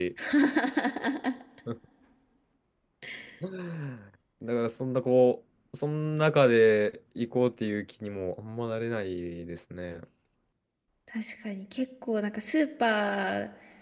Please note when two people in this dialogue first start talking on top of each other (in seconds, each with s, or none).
none